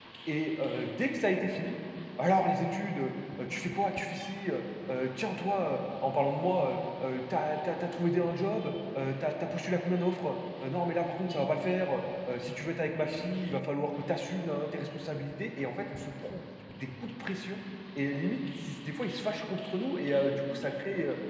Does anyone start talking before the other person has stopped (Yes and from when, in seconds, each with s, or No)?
No